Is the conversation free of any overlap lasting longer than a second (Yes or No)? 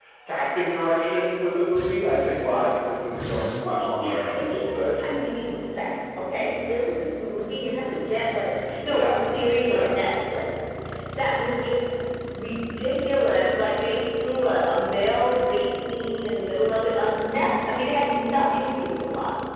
No